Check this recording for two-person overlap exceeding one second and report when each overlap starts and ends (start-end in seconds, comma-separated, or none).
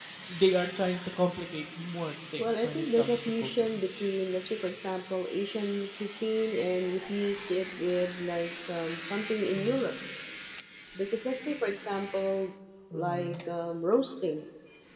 2.4-3.8